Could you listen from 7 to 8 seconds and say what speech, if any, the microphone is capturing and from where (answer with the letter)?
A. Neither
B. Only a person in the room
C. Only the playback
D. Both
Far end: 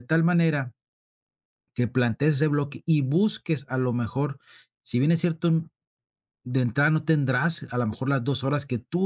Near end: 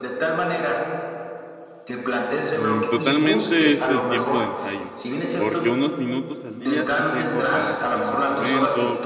D